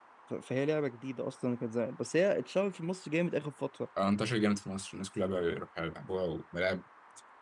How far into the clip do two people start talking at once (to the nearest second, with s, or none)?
none